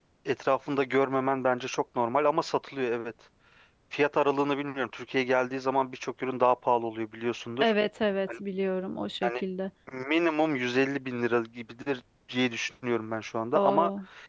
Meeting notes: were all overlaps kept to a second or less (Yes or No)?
Yes